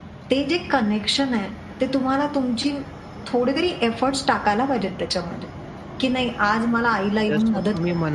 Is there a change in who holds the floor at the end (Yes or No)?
Yes